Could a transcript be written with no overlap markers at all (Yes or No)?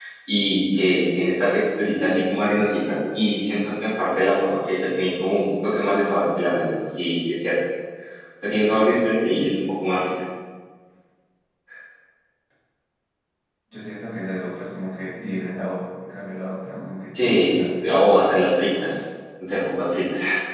No